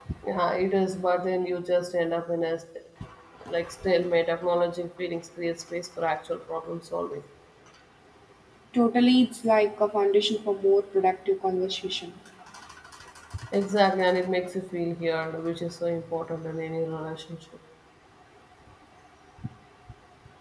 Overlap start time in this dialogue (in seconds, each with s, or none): none